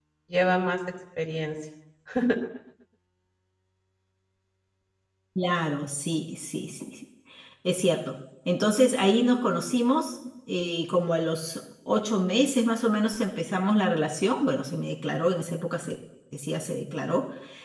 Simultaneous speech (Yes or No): No